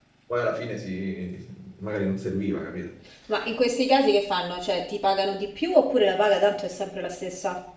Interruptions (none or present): none